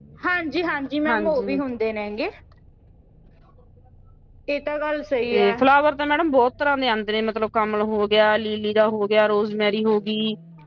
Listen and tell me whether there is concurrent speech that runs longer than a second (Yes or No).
No